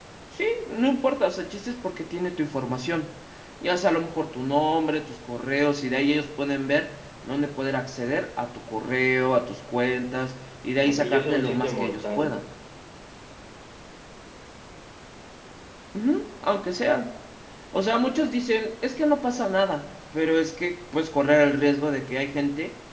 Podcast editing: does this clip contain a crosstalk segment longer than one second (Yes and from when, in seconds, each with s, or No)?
Yes, from 10.8 s